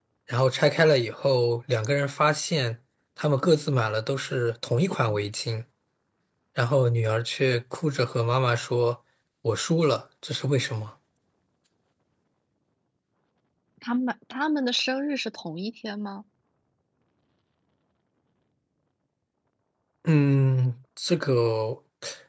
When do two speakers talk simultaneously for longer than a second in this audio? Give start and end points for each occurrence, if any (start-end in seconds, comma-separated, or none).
none